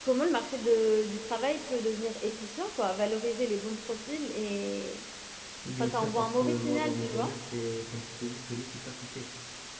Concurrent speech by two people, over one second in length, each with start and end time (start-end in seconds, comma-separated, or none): 5.8-7.3